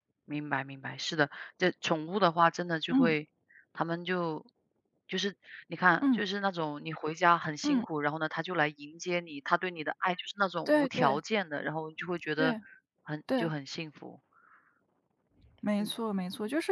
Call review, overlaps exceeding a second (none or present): none